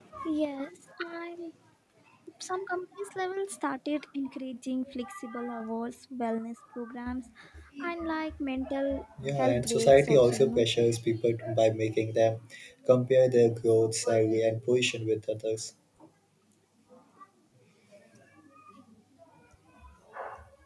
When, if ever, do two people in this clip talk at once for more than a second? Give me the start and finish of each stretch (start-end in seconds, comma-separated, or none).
9.4-10.7